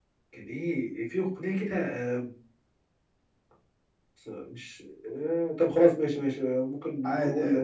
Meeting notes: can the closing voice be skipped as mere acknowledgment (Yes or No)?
Yes